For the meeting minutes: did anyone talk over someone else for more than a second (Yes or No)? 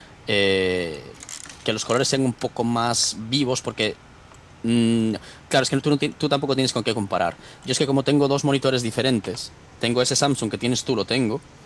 No